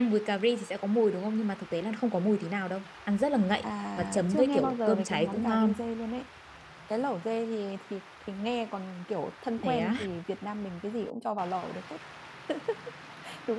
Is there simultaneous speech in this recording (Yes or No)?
Yes